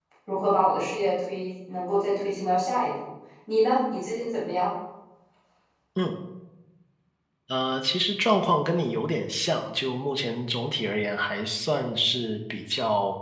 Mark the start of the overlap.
none

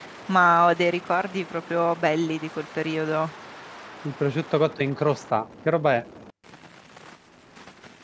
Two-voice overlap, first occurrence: none

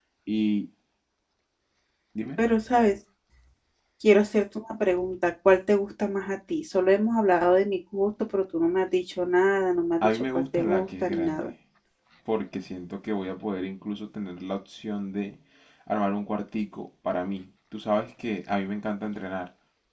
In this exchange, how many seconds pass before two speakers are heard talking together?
10.0 s

